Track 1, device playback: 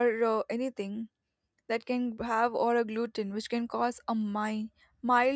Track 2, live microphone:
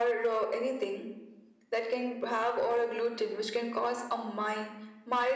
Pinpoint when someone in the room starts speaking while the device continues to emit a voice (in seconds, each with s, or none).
none